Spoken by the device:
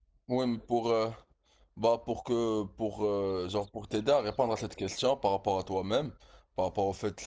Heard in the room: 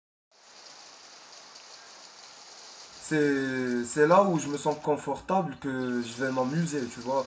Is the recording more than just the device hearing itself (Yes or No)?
Yes